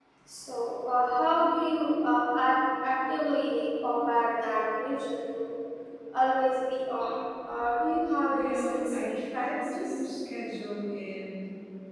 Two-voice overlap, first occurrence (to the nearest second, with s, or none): 8 s